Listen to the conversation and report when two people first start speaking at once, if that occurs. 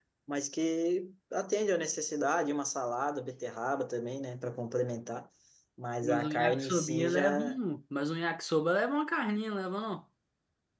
6.0 s

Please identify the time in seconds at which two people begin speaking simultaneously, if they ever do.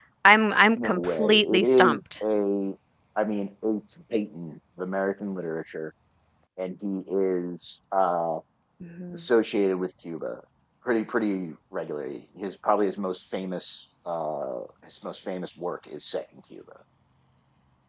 0.8 s

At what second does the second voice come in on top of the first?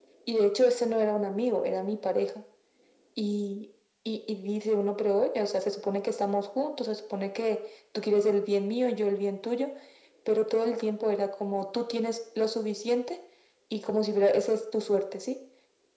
none

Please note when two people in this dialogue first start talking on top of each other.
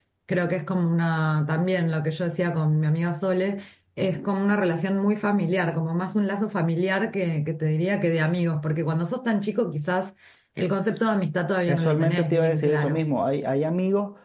11.7 s

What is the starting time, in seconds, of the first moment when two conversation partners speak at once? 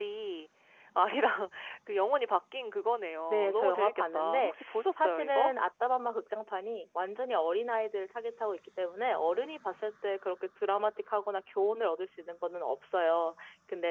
3.3 s

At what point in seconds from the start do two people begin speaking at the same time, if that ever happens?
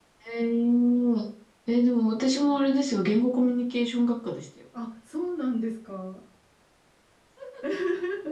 none

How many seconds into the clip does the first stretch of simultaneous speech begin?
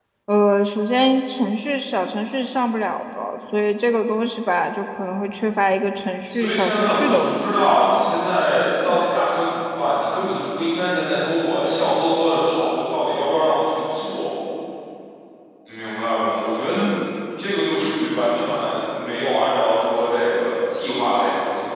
6.3 s

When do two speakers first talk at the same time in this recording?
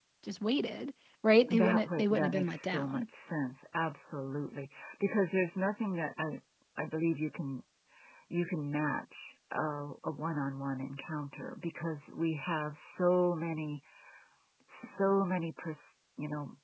1.5 s

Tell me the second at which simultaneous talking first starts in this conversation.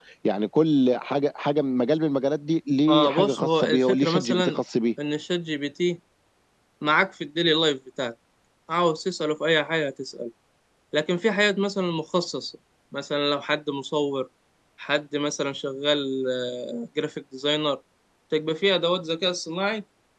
2.9 s

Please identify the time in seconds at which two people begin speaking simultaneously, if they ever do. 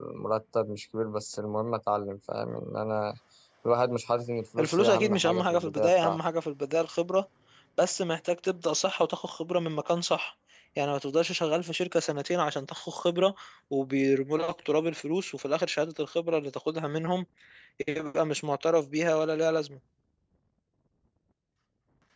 4.6 s

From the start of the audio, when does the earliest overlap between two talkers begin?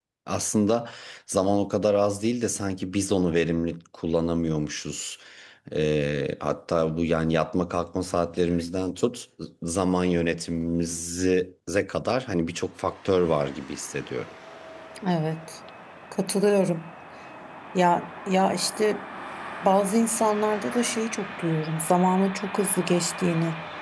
none

